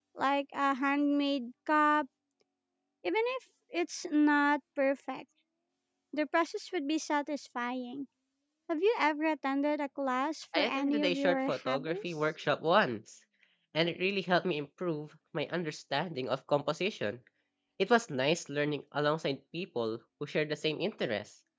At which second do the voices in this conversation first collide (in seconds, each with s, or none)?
10.5 s